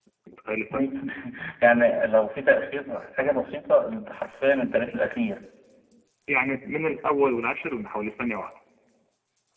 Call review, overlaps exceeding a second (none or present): none